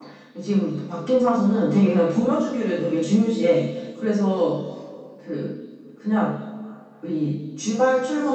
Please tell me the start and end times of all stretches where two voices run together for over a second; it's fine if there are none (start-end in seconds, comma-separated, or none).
none